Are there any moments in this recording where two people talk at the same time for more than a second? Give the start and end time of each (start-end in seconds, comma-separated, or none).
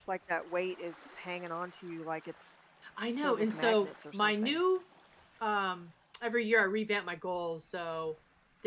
3.2-4.6